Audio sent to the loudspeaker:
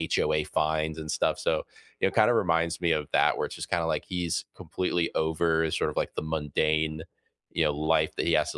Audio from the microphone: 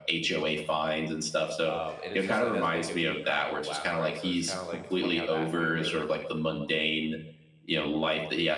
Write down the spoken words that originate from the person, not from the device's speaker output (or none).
Um, and it's just like that's making me crack up laugh, right? So it's kind of like it's funny how that humor,